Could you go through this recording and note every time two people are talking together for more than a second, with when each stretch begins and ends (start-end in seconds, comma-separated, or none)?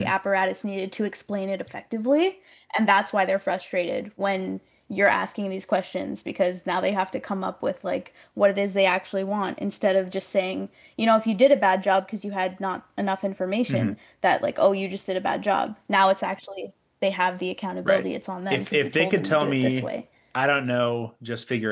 18.5-19.9